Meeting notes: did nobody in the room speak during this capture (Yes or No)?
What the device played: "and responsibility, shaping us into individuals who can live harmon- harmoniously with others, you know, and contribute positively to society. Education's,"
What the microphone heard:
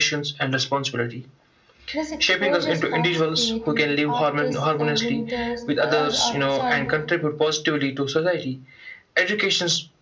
No